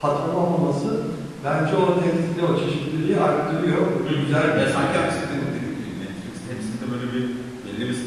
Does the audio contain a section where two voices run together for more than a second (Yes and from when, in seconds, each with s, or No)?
Yes, from 4.1 s